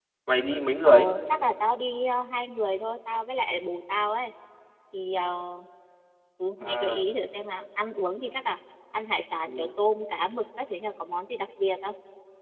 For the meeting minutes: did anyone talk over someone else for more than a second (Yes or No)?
No